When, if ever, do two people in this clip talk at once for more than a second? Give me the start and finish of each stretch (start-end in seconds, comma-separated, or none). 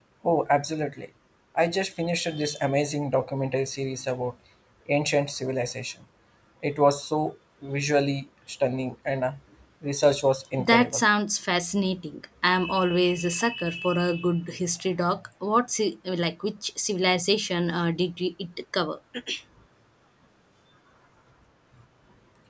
none